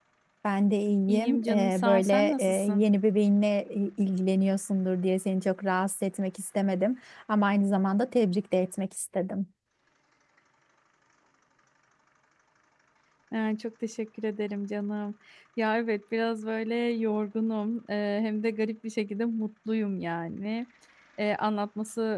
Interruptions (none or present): present